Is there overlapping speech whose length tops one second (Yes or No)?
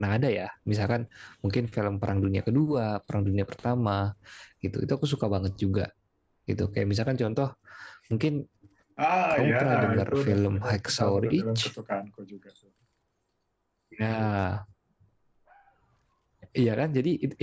Yes